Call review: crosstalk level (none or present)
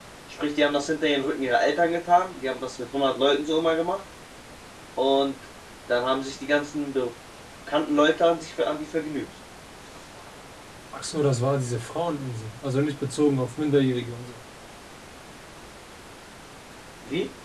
none